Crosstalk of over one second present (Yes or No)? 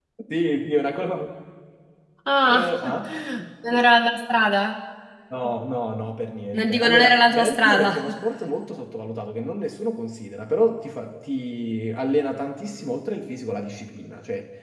Yes